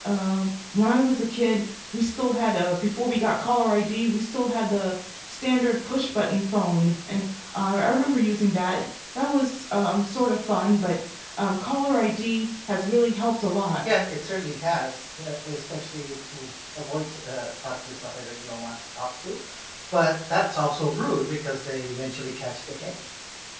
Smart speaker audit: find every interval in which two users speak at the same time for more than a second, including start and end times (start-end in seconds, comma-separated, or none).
none